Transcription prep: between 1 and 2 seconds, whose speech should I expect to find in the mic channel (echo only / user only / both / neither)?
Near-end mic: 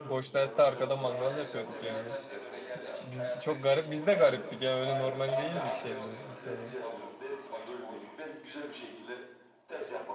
both